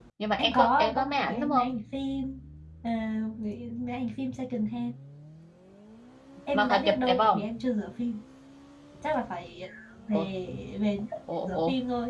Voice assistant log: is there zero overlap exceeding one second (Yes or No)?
No